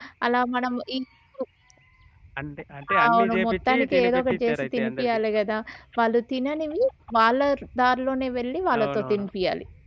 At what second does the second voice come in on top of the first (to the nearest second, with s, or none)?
3 s